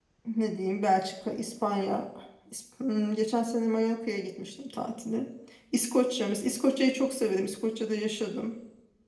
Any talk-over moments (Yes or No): No